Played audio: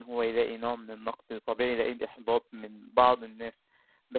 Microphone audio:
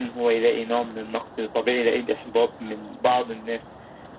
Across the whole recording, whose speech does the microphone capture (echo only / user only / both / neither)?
echo only